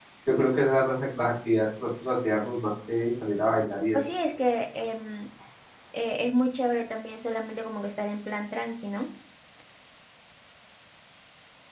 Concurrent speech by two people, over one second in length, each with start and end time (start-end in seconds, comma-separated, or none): none